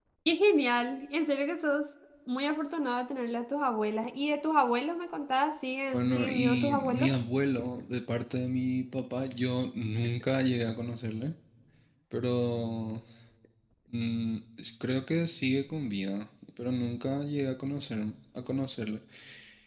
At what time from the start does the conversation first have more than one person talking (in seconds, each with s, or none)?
5.9 s